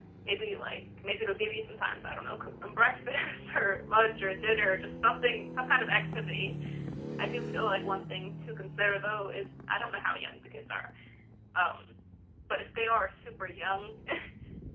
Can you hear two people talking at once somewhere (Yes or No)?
No